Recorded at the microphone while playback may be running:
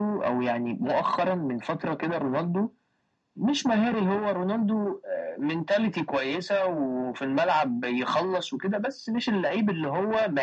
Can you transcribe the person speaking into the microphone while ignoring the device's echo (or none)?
none